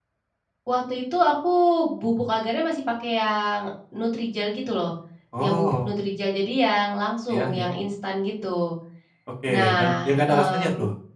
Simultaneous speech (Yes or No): Yes